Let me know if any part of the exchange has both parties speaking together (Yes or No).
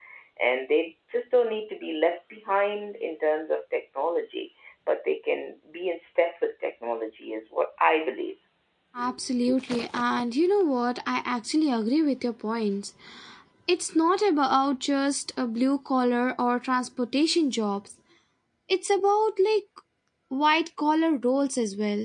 No